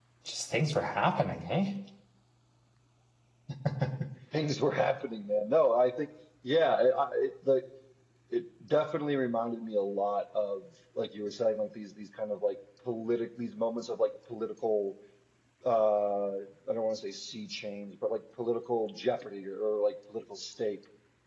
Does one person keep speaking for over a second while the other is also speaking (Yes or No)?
No